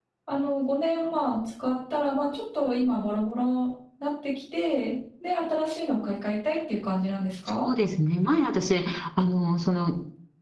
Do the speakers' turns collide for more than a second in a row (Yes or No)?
No